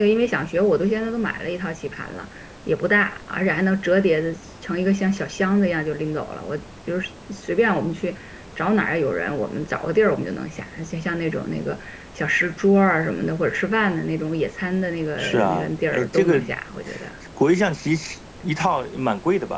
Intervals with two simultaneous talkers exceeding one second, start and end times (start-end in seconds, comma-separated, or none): 15.2-16.4